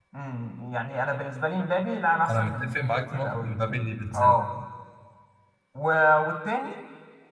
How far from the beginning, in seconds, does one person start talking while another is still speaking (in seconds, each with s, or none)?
2.3 s